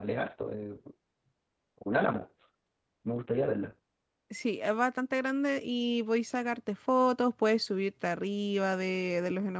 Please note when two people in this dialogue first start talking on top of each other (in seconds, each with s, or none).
none